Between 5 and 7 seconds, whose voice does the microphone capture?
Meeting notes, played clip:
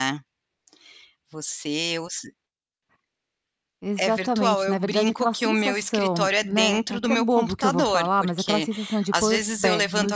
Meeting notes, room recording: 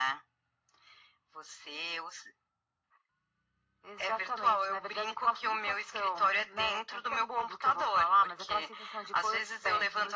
echo only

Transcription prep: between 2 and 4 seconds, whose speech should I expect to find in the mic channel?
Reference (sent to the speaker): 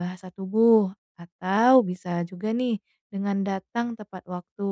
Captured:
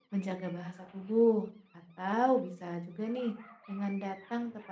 echo only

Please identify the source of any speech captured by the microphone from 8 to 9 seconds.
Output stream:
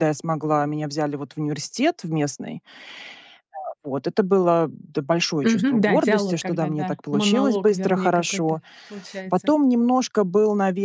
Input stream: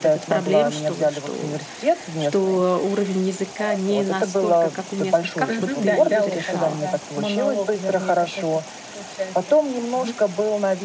echo only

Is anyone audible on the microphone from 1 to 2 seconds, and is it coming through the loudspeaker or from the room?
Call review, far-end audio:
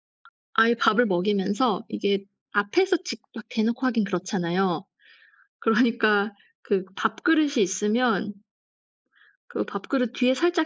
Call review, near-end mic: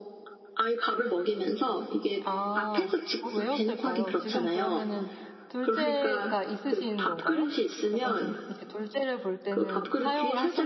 echo only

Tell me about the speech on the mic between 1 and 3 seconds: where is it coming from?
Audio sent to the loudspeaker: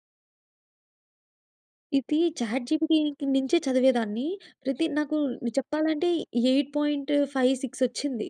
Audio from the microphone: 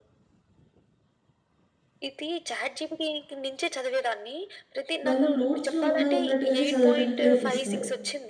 echo only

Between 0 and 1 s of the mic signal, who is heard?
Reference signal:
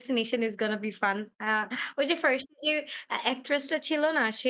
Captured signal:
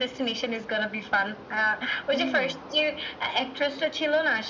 echo only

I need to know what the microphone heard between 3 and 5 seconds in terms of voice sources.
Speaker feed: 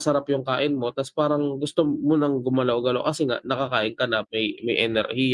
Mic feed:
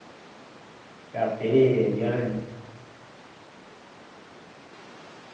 neither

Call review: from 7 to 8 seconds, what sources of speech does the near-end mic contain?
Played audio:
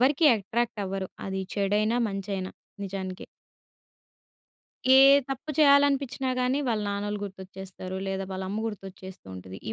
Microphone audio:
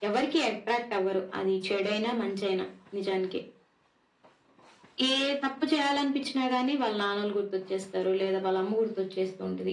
echo only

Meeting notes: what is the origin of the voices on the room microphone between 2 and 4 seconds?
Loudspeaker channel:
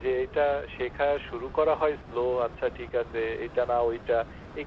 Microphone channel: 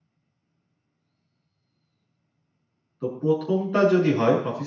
user only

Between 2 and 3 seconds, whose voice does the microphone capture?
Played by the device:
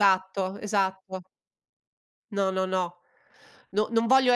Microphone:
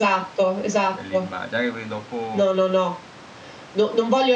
both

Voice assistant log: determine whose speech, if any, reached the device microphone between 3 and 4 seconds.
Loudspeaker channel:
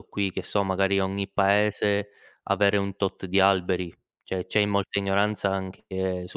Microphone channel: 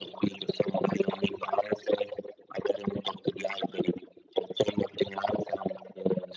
echo only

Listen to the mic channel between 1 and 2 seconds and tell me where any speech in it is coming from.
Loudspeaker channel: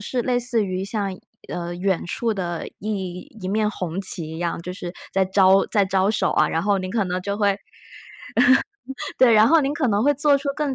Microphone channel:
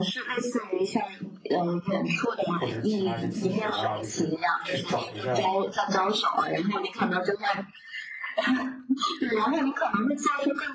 echo only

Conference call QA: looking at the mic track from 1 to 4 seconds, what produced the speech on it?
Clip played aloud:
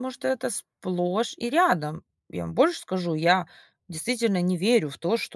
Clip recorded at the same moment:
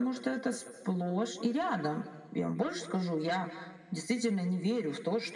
echo only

